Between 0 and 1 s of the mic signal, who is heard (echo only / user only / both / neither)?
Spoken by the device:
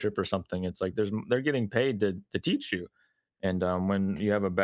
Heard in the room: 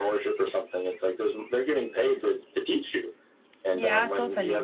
echo only